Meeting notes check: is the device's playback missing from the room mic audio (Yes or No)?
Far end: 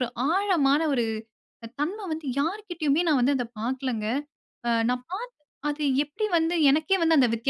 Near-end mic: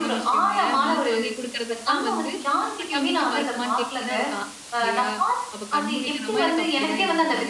No